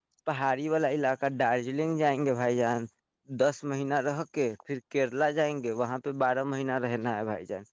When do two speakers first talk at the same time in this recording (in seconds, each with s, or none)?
none